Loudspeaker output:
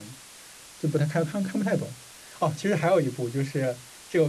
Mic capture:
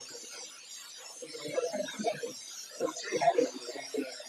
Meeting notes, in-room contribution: none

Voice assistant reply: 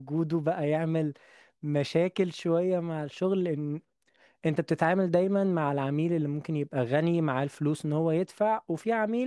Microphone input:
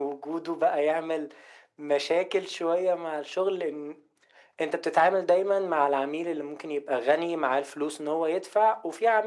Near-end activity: none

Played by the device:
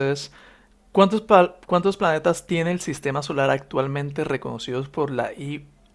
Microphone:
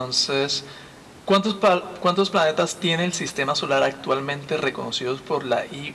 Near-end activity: none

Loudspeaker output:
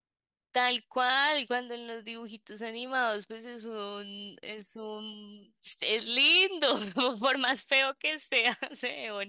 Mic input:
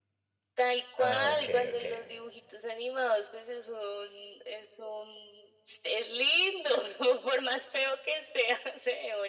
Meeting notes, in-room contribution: present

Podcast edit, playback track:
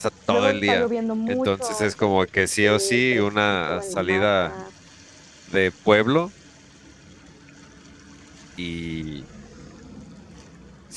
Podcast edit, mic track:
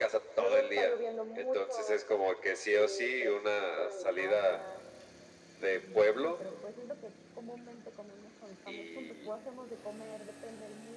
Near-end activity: present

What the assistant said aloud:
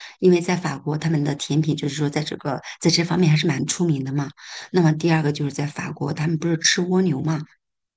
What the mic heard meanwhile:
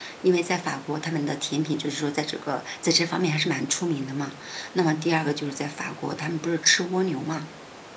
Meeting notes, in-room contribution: none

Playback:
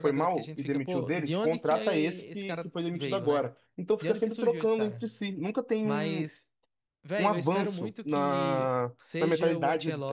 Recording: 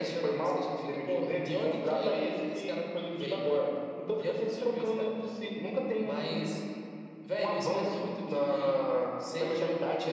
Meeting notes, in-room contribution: none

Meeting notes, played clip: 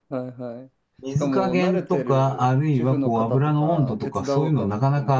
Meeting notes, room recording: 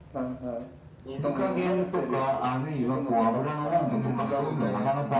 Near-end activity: present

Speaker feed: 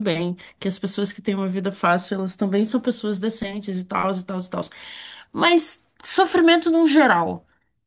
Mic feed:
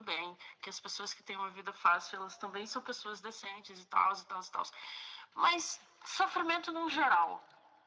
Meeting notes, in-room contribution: none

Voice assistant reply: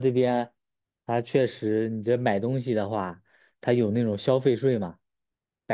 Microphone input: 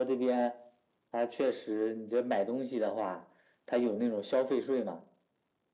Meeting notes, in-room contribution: none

